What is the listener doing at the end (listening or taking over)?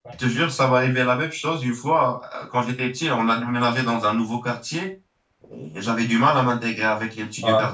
listening